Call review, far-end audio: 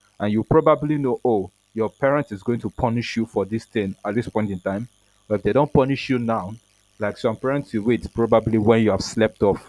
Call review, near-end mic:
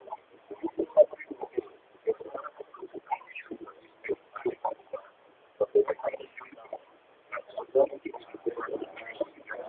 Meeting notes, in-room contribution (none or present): present